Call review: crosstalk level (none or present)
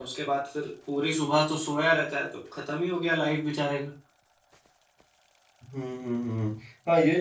none